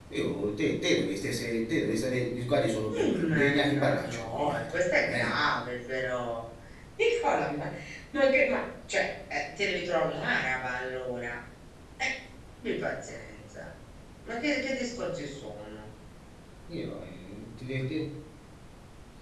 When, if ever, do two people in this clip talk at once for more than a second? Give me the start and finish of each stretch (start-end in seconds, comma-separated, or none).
2.9-5.3